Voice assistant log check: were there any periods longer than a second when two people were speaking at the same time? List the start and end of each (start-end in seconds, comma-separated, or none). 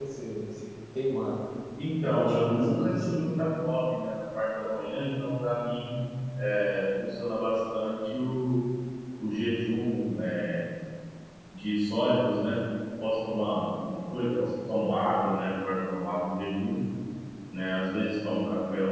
2.0-3.2